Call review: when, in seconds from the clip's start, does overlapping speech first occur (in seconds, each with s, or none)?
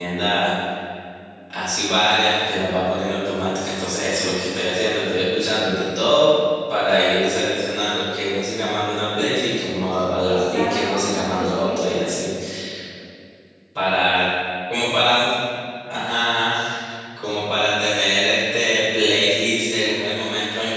10.3 s